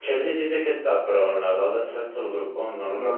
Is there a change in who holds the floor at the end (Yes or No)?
Yes